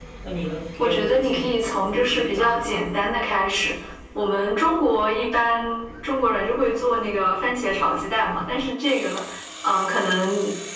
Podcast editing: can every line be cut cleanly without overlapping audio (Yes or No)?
No